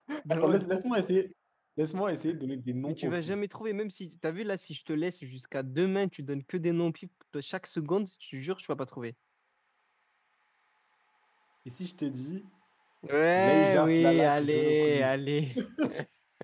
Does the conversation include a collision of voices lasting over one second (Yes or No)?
Yes